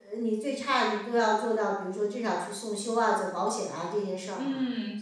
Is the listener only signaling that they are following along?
No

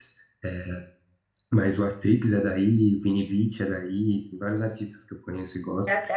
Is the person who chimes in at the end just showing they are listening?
No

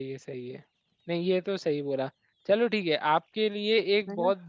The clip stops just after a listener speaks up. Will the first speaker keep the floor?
Yes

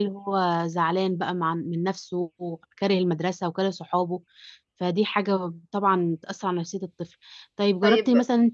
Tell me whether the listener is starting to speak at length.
No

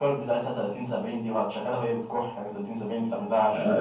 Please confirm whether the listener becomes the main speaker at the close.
Yes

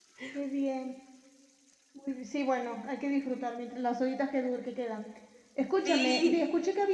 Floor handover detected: No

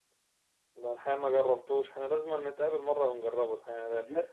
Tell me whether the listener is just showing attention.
No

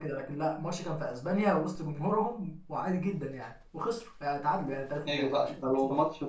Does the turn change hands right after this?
Yes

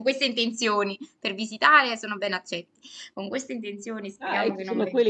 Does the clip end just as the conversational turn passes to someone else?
Yes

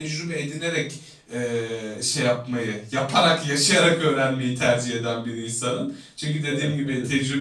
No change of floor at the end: Yes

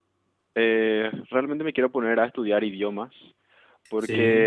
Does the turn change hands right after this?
No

